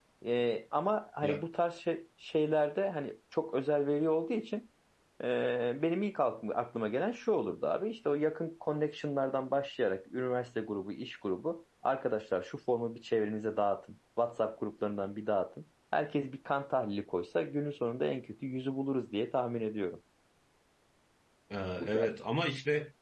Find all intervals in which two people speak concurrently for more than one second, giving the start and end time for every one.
none

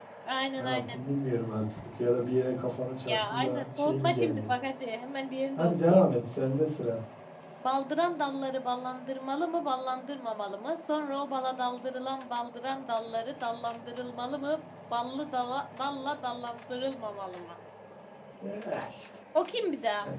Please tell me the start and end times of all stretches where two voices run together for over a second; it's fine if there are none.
3.1-4.5

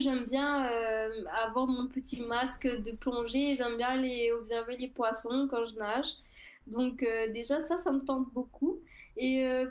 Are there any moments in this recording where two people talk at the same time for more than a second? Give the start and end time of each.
none

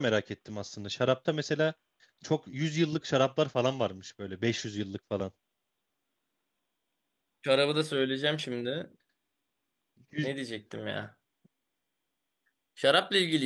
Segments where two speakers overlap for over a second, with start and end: none

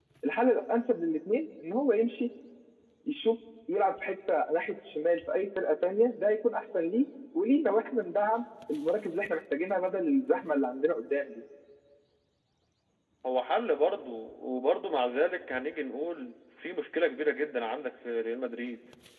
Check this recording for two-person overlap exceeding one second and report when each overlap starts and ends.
none

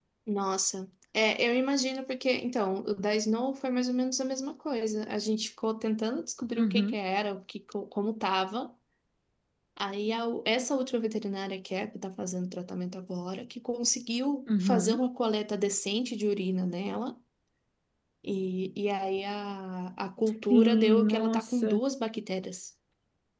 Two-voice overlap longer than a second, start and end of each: 20.5-21.8

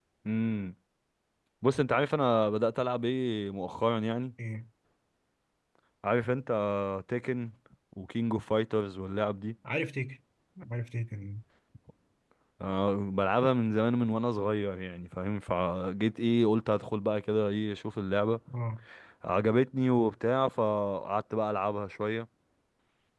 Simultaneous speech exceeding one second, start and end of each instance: none

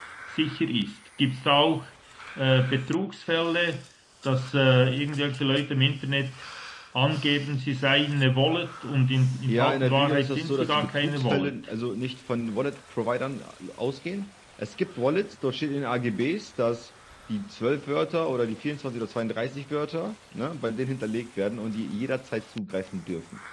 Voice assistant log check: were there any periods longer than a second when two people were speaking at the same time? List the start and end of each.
9.5-11.5

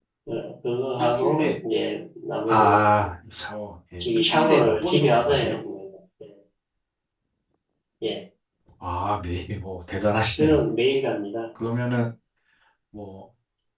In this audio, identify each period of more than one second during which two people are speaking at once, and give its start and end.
4.0-5.6

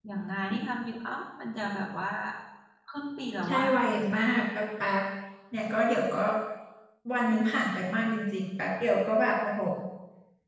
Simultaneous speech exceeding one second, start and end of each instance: none

